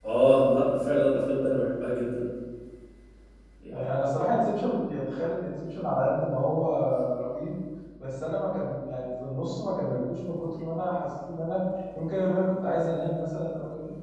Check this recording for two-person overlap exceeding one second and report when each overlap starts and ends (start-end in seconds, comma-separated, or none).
none